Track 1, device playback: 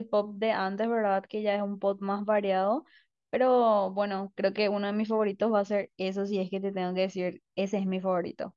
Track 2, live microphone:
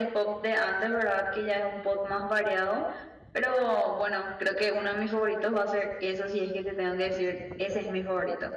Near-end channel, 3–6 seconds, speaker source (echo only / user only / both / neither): echo only